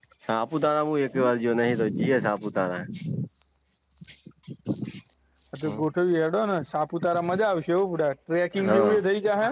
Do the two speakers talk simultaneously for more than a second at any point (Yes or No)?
No